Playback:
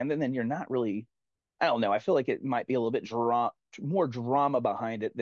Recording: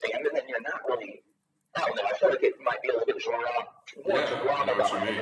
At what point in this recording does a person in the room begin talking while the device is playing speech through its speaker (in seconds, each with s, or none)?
4.0 s